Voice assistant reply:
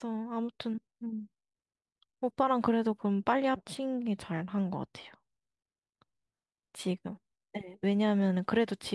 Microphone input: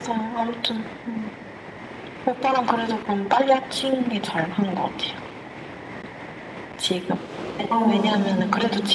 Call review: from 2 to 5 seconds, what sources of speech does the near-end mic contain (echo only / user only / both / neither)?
echo only